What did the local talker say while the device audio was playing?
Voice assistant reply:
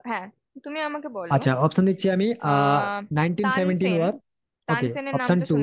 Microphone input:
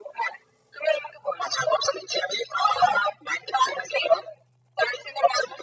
none

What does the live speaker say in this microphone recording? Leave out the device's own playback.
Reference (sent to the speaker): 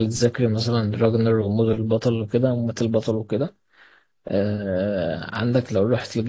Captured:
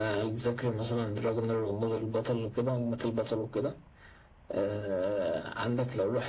none

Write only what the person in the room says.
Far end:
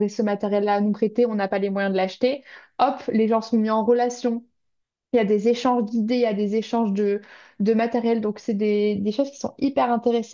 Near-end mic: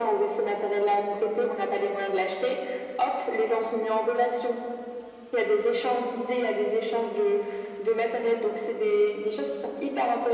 none

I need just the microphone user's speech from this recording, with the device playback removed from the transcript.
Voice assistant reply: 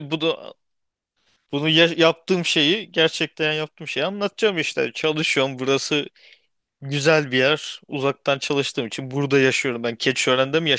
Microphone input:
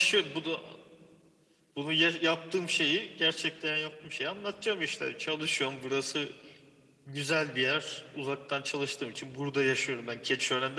none

